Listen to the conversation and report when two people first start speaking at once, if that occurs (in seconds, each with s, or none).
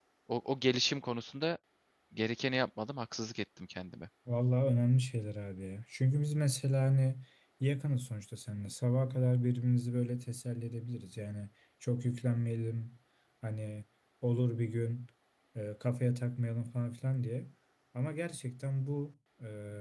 none